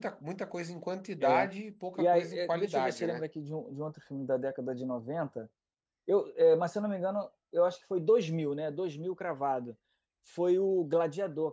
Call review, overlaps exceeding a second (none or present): present